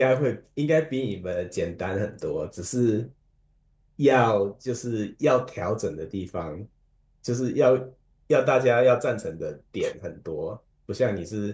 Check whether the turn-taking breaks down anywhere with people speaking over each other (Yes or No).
No